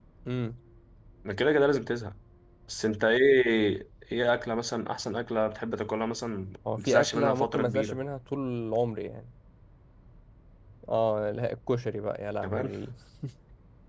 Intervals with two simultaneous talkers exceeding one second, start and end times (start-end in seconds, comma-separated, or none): 6.8-8.0